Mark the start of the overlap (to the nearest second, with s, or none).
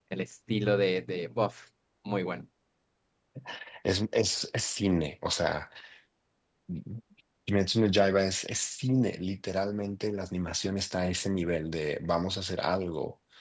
none